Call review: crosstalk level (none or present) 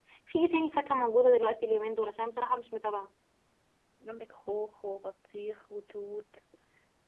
none